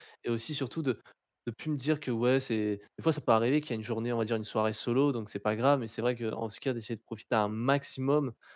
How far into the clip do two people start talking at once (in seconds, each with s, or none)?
none